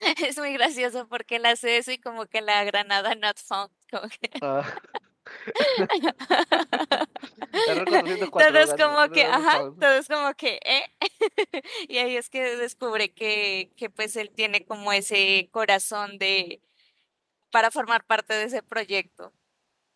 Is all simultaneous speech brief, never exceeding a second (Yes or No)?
No